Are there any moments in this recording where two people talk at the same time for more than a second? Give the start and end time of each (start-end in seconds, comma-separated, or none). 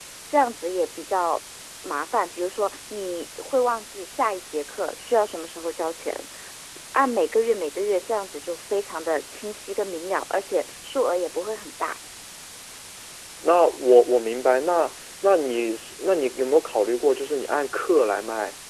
none